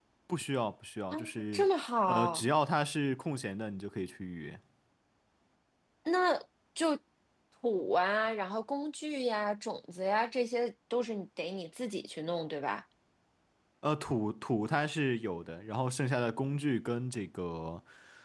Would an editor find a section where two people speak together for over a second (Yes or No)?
No